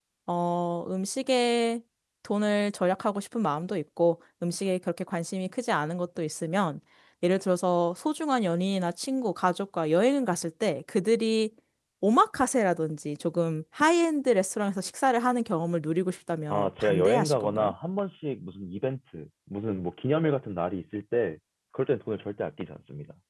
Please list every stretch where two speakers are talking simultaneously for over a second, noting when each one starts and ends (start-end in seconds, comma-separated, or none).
16.5-17.7